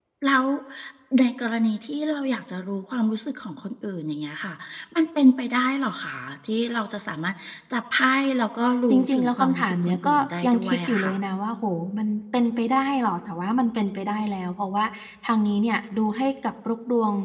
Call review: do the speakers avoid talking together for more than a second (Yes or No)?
No